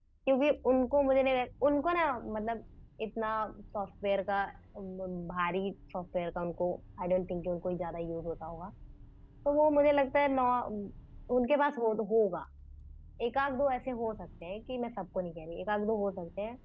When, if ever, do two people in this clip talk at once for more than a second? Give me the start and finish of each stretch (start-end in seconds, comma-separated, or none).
none